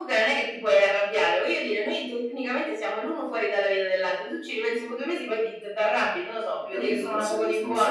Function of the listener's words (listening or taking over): taking over